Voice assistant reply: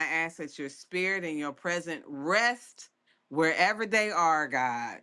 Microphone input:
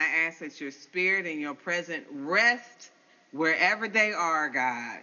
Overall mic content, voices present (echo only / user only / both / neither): echo only